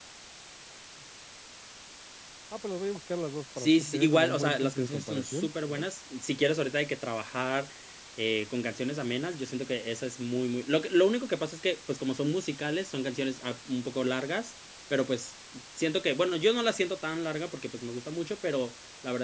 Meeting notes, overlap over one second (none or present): present